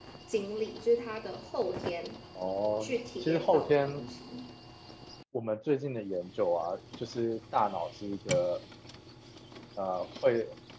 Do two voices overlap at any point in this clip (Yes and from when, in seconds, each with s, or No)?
Yes, from 2.8 s